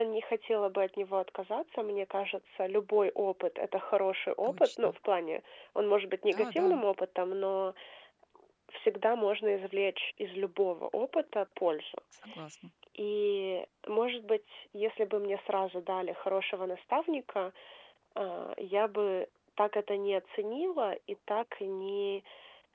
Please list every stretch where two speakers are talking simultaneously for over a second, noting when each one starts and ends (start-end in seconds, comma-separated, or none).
none